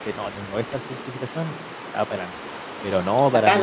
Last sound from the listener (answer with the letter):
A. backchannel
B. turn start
B